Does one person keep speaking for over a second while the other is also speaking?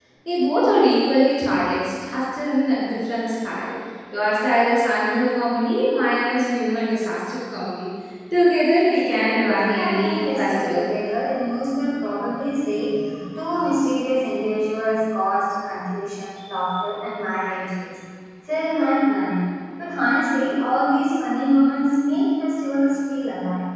Yes, from 9.0 s

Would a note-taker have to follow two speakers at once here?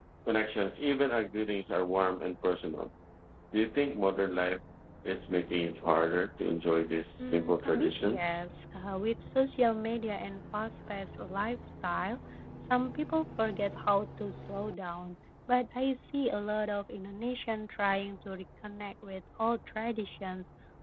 Yes, from 7.2 s

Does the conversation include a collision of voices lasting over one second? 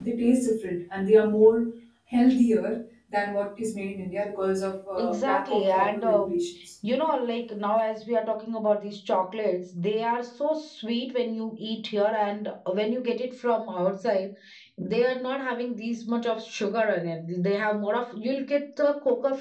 Yes, from 5.0 s

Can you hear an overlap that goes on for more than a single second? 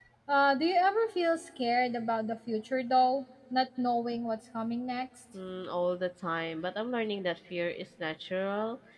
No

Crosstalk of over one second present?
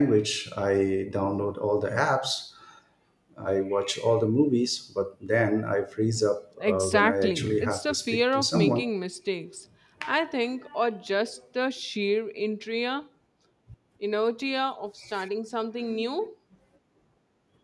Yes, from 6.6 s

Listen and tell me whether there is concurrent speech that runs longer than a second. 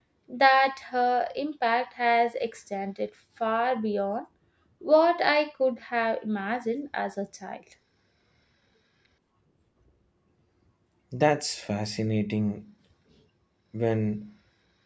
No

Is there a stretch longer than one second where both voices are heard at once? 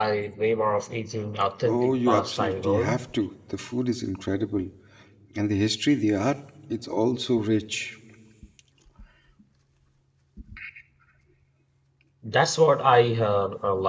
Yes, from 1.6 s

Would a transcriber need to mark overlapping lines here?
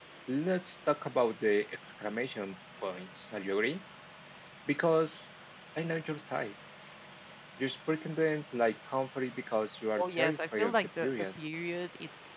Yes, from 10.0 s

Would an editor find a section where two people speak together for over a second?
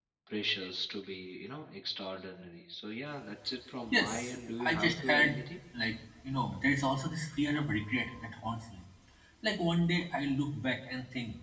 Yes, from 3.8 s

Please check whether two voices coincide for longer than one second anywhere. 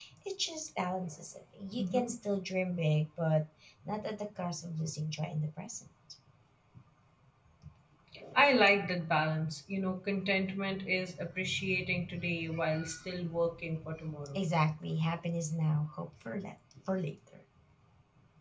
No

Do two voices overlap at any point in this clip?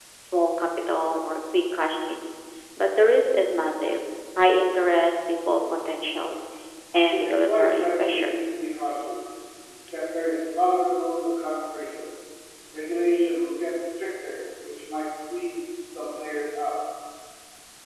Yes, from 7.1 s

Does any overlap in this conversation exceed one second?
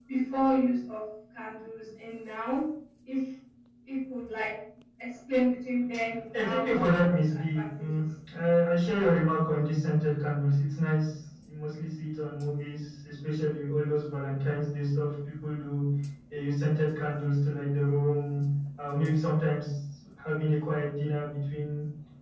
Yes, from 6.3 s

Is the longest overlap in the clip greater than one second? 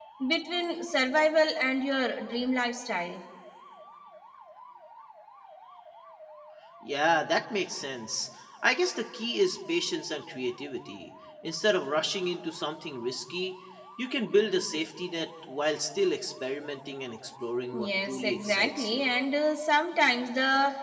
Yes, from 17.7 s

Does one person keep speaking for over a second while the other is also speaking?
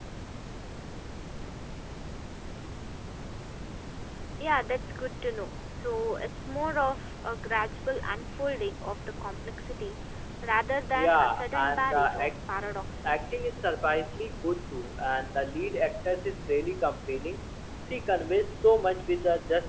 Yes, from 10.9 s

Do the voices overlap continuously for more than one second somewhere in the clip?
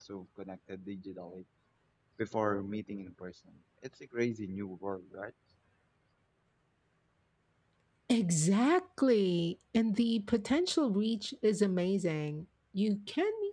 No

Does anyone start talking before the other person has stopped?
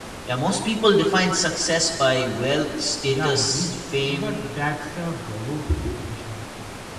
Yes, from 3.0 s

